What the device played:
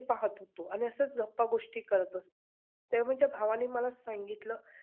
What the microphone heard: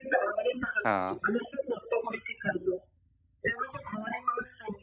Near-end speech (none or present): present